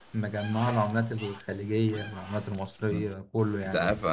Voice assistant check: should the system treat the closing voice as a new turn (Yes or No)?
Yes